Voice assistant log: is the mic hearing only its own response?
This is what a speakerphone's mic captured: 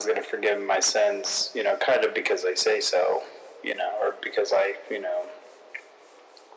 Yes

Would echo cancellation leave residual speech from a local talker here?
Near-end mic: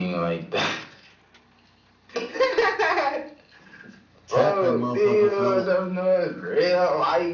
Yes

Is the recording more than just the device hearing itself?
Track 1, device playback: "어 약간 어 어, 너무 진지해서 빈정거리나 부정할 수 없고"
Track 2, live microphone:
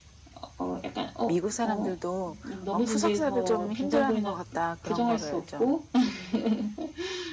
Yes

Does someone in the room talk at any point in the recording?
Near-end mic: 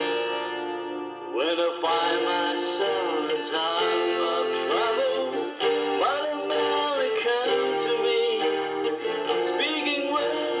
No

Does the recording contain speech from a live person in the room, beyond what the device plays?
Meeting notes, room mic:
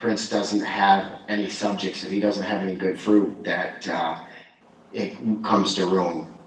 Yes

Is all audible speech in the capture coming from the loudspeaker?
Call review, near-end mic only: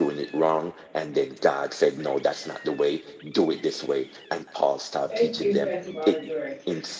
No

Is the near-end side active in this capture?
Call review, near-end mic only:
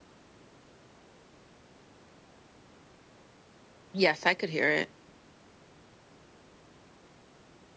Yes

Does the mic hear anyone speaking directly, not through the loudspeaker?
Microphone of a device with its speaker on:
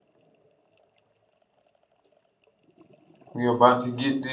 Yes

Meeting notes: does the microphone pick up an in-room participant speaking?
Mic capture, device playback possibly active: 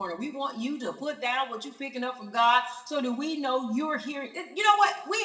Yes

